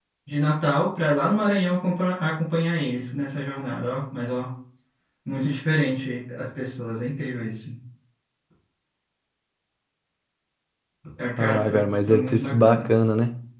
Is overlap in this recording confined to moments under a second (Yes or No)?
No